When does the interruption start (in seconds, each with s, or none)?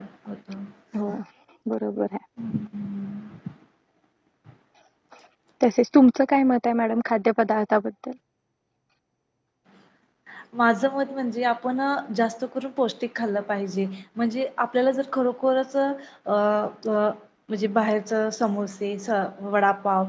none